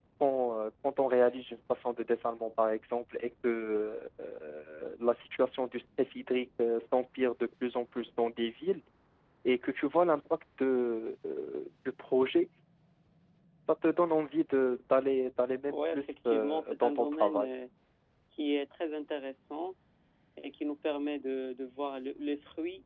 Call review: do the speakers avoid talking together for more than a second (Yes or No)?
No